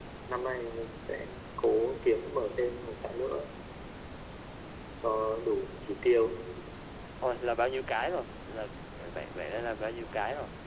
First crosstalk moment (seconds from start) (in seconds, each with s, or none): none